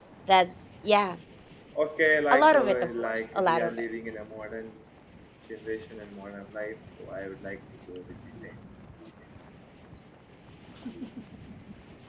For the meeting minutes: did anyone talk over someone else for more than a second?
Yes, from 2.3 s

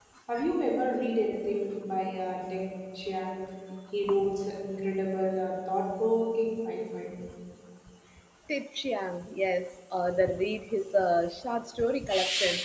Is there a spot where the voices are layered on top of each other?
No

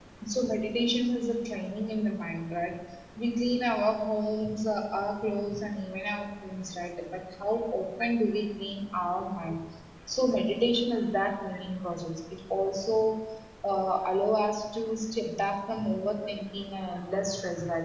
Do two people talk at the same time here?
No

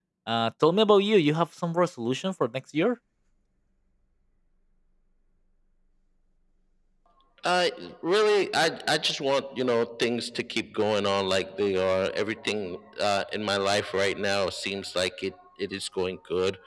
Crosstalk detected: No

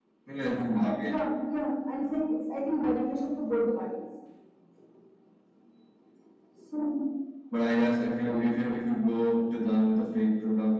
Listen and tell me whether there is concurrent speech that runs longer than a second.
No

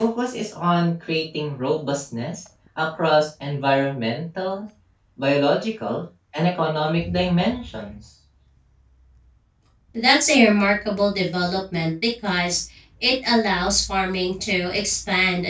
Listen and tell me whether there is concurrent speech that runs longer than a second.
No

